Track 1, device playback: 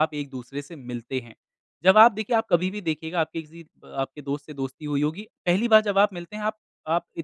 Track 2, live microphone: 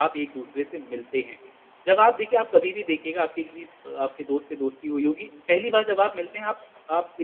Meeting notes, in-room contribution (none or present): none